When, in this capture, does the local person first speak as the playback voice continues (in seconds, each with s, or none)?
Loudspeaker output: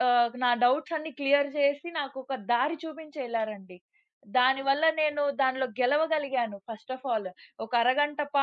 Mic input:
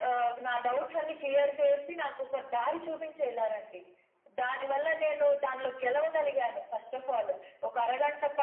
none